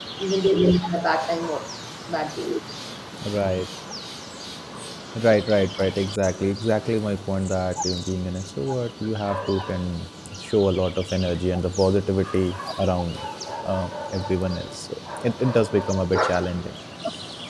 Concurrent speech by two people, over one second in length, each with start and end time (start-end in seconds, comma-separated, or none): none